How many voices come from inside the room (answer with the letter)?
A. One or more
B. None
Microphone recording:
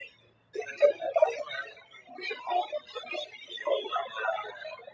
B